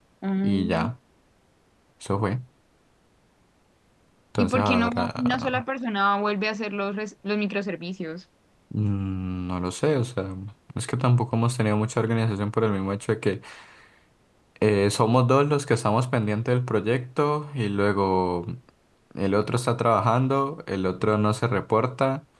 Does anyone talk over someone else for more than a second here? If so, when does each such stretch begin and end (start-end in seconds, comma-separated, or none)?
4.4-5.6